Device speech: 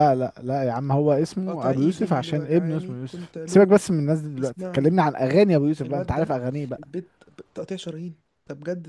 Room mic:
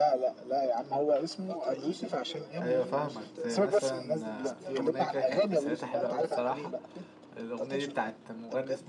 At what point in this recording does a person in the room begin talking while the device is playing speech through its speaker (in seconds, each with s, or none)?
2.6 s